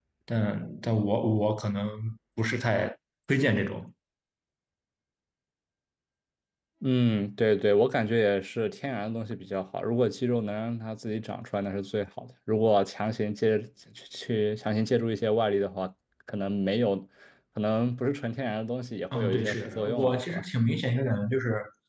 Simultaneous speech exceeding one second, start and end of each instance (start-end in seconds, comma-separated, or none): 19.1-20.4